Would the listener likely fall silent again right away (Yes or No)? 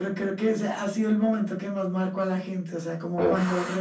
Yes